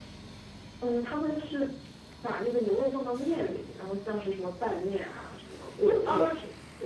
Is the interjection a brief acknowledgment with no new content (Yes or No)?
No